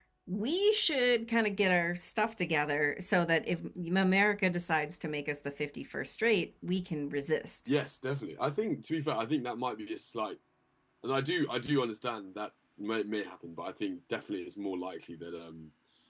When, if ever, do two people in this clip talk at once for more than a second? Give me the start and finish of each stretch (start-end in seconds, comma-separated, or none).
none